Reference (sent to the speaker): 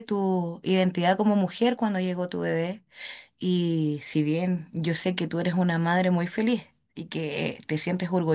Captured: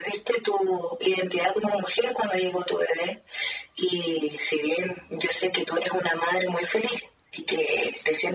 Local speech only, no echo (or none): none